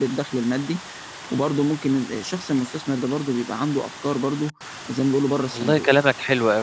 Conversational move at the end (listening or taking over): taking over